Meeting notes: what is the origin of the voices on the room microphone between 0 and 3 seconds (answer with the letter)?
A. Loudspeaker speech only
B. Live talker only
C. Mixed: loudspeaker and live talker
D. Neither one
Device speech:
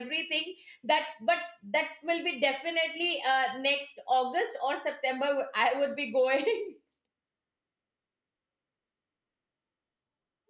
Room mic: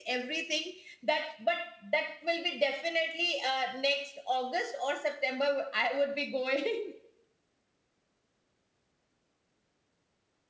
A